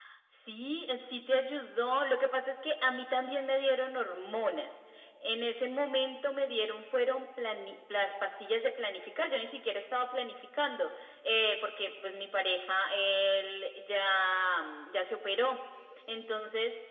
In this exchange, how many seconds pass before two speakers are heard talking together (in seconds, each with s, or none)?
none